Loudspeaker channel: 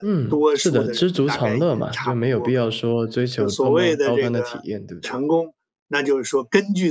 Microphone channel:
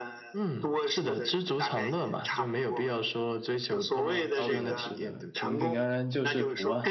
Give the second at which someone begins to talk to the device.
4.4 s

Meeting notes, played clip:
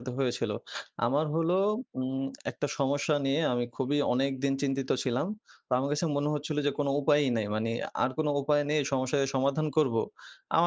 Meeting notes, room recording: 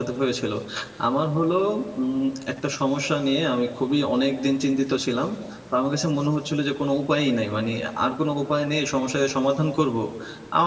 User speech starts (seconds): none

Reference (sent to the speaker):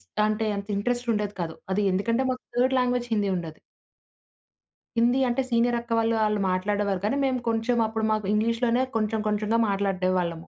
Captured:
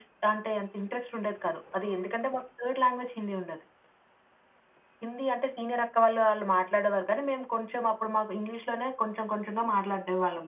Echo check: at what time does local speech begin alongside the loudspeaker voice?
none

